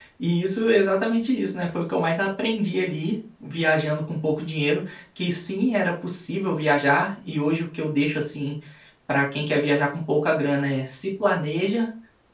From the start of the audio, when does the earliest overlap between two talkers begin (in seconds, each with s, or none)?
none